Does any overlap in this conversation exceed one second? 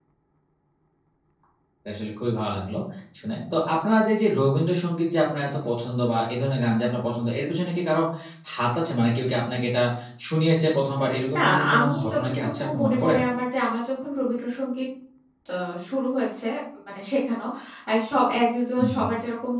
Yes, from 11.3 s

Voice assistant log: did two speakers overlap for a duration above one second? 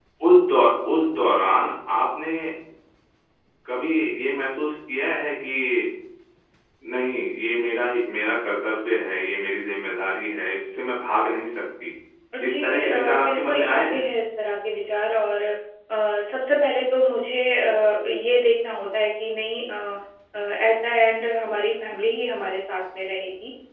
Yes, from 12.4 s

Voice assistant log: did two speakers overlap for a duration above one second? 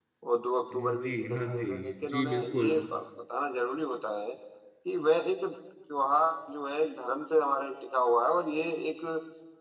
Yes, from 0.7 s

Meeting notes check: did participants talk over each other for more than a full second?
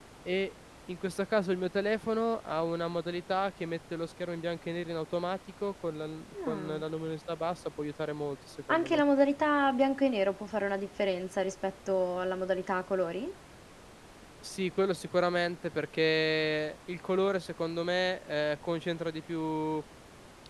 No

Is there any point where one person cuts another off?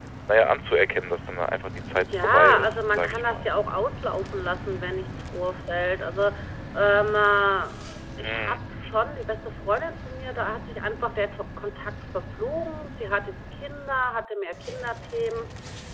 Yes, from 1.9 s

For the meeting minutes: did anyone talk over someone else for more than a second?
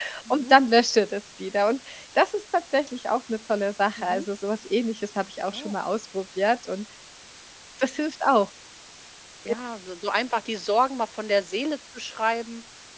No

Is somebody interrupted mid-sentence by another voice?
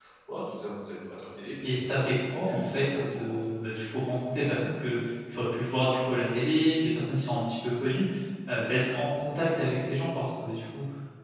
Yes, from 1.6 s

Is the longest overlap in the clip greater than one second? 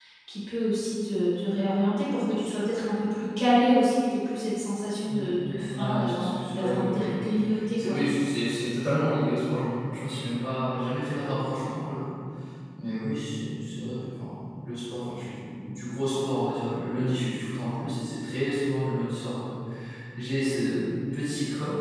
Yes, from 5.1 s

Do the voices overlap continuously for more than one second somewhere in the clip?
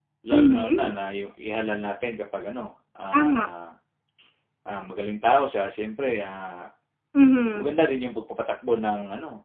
No

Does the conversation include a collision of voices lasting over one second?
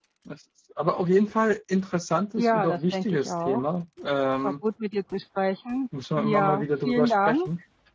Yes, from 2.4 s

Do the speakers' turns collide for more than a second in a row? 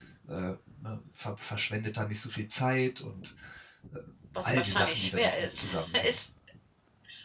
Yes, from 4.4 s

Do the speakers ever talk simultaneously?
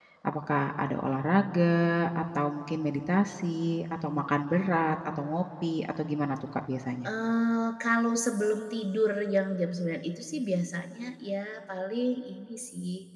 No

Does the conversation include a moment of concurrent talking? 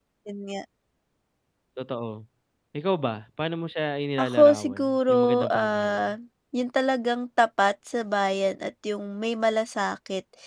Yes, from 4.2 s

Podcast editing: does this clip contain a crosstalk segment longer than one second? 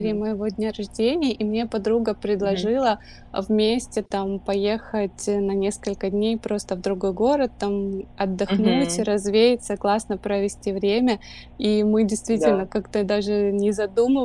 No

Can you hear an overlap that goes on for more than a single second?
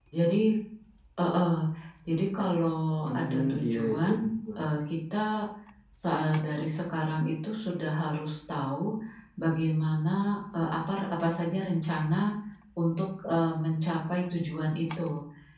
Yes, from 3.1 s

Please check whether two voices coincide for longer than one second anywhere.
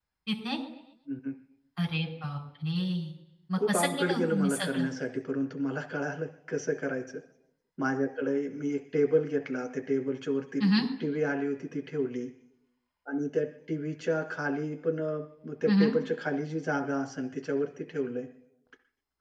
Yes, from 3.6 s

